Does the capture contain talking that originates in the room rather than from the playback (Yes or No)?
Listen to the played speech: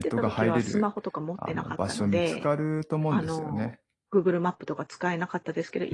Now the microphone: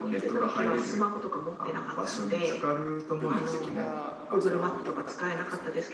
Yes